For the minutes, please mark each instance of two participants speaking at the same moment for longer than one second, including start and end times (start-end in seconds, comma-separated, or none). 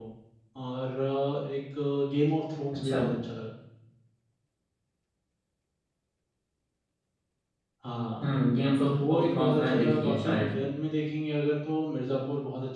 8.9-10.5